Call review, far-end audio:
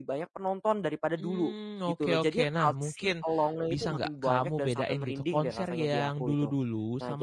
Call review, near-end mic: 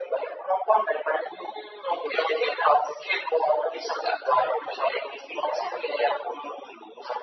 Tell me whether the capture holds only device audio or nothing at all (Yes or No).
Yes